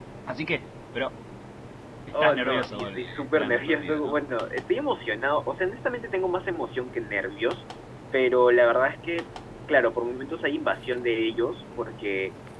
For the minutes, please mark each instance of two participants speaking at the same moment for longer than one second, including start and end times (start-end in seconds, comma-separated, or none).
2.2-4.2